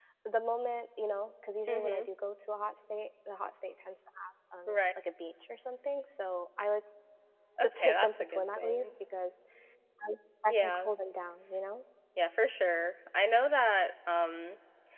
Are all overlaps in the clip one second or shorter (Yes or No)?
No